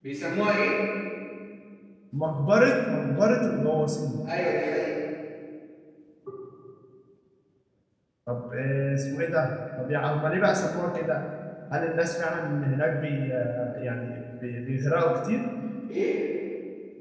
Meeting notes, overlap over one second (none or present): none